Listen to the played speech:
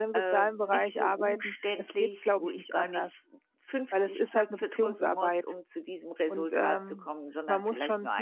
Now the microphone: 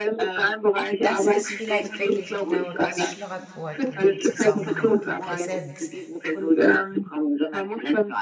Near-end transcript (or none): Das ist vielleicht wirklich genau das Schlagwort in dem Zusammenhang, die Präsenz.